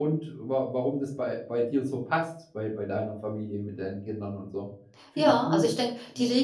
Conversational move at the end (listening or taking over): taking over